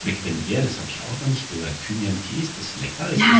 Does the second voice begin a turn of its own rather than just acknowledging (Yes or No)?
Yes